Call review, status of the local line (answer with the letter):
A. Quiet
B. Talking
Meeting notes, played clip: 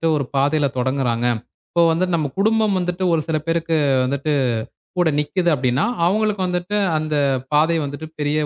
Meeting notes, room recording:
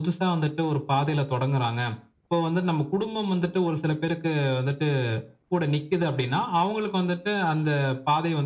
A